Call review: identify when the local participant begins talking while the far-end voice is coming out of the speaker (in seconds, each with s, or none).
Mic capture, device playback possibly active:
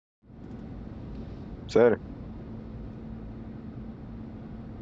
1.7 s